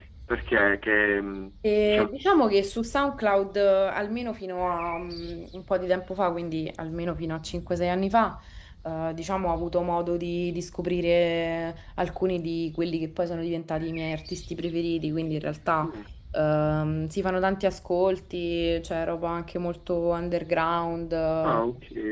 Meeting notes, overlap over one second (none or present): none